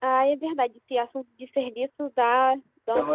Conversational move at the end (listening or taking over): listening